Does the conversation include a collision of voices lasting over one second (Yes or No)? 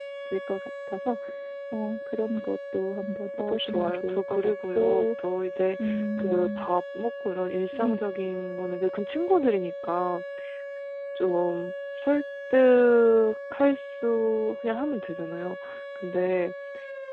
Yes